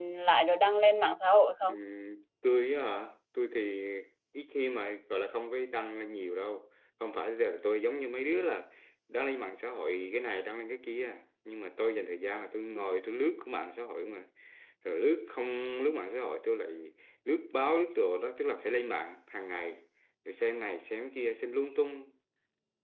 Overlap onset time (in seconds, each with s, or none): none